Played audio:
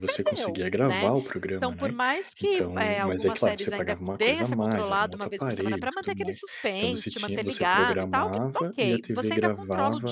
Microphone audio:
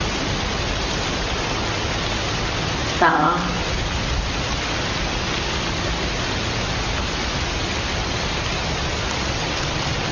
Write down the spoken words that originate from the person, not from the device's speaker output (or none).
tá.